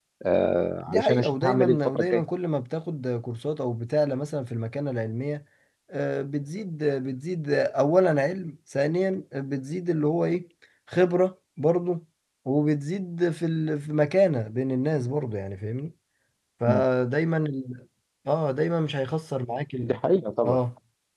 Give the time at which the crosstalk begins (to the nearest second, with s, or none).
1 s